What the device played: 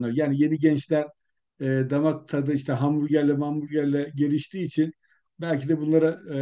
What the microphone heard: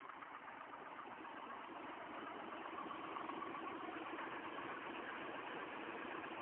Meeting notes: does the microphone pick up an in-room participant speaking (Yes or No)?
No